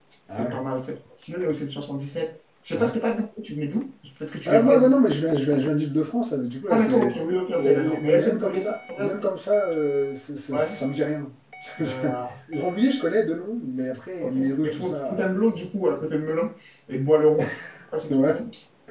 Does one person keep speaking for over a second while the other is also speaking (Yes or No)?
Yes